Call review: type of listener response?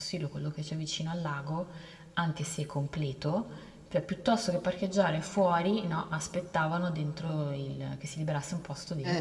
taking over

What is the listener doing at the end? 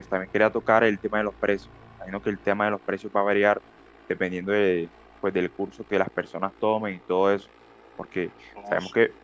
listening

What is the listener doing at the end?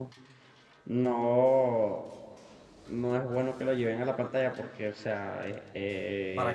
listening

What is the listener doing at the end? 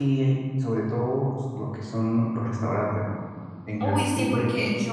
taking over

